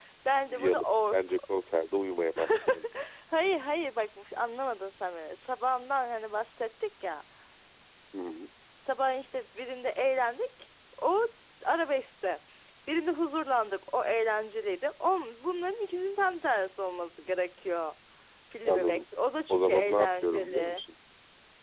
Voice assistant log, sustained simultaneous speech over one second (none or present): present